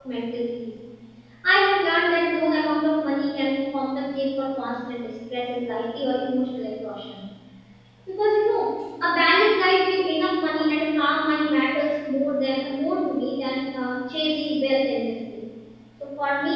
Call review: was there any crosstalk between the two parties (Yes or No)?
No